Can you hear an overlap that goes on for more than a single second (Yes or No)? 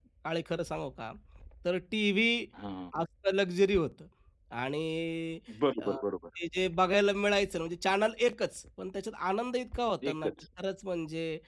No